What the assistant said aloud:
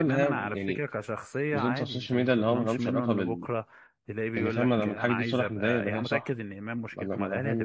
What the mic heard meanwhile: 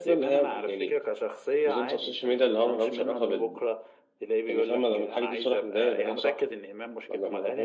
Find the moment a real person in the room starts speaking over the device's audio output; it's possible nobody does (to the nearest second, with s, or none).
none